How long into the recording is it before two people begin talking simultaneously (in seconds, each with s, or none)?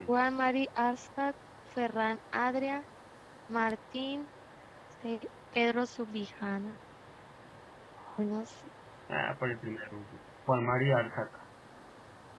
none